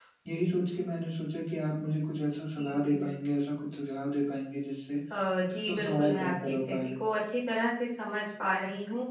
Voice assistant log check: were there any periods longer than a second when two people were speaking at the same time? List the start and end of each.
5.7-6.9

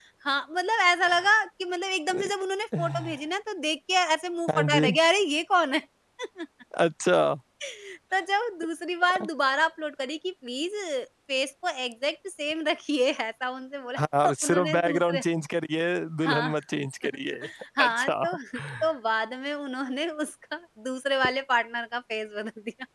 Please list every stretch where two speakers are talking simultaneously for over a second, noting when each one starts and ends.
14.0-15.2

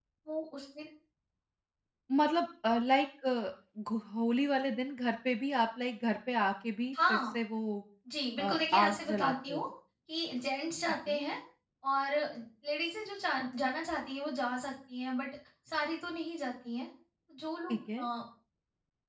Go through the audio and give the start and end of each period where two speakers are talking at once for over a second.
8.4-9.6

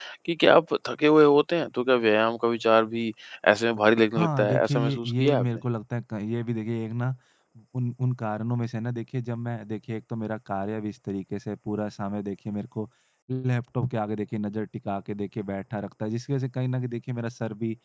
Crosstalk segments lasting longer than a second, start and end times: 4.2-5.5

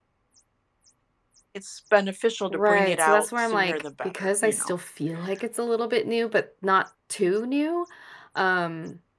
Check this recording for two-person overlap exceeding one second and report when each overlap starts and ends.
2.5-4.7

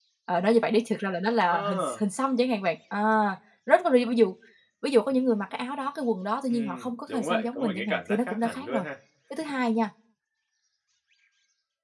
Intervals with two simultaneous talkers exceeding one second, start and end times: 6.5-8.8

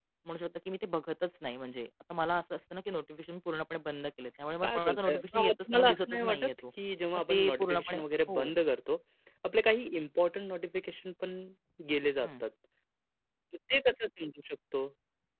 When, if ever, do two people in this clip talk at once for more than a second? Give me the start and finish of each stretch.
4.6-6.5, 7.3-8.5

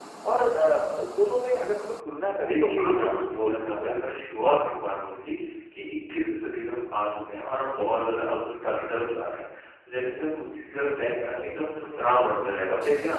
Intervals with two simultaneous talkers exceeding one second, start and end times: 2.3-4.0

